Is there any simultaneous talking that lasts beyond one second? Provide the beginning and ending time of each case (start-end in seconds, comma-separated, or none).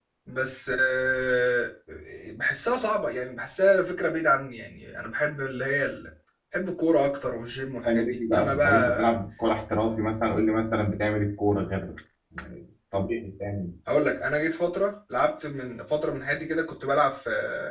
7.8-9.1